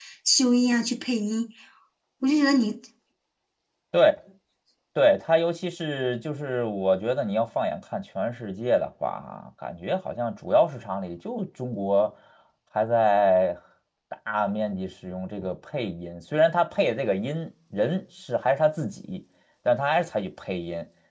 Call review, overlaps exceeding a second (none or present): none